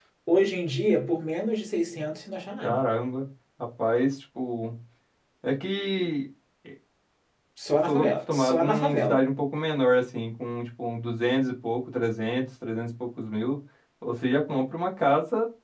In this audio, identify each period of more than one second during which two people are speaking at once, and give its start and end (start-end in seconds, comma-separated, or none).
7.9-9.2